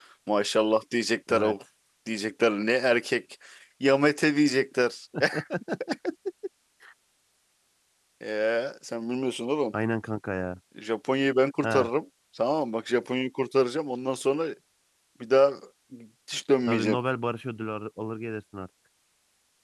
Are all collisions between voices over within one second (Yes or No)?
Yes